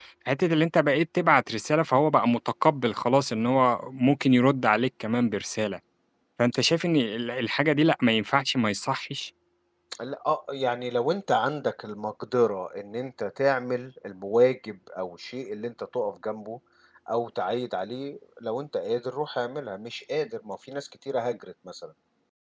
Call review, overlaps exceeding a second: none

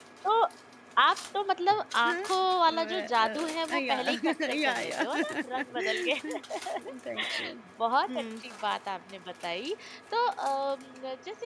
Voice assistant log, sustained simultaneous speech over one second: present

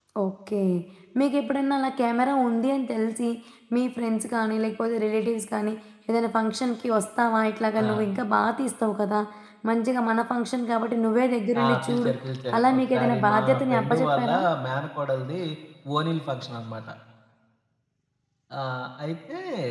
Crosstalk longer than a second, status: present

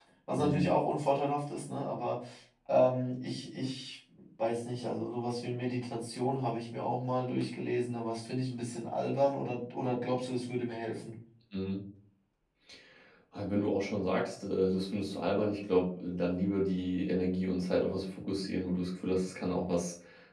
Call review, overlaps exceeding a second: none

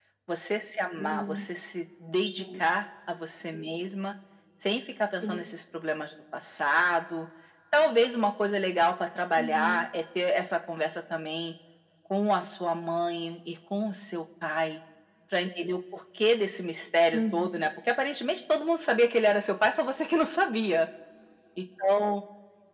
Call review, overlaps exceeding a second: none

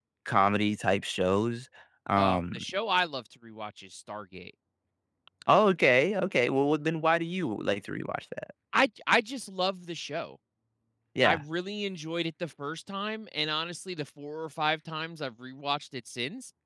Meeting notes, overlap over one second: none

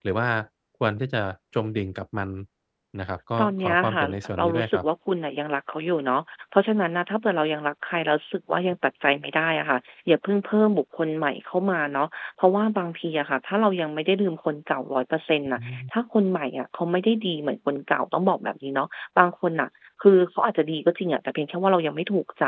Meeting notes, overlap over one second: present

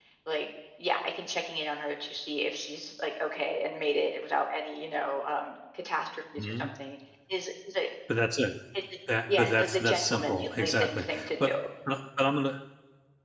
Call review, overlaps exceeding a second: present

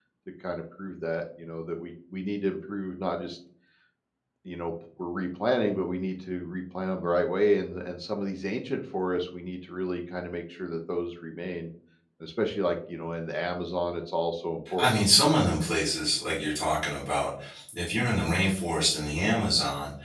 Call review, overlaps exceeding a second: none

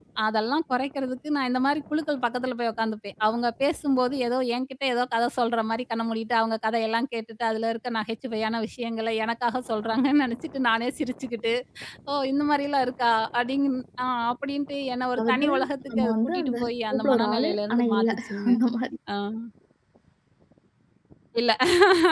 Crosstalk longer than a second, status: present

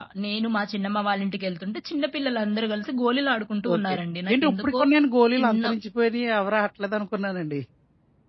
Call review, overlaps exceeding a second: none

